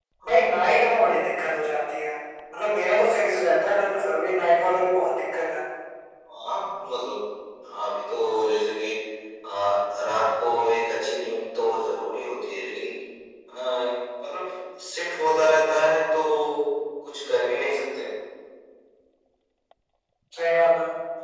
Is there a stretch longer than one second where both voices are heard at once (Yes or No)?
No